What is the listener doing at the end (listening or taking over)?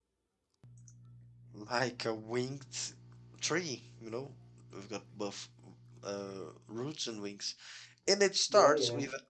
listening